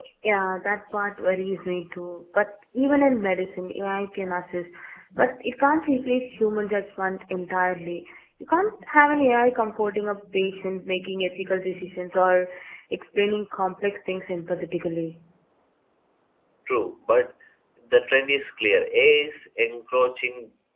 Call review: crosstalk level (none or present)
none